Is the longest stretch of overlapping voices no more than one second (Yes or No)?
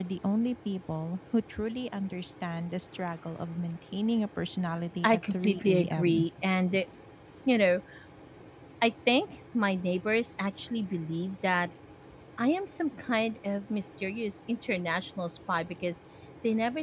No